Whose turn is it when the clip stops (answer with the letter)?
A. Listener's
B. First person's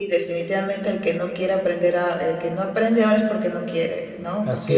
B